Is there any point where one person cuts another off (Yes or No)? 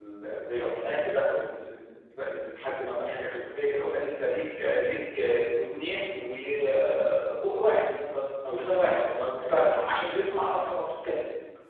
Yes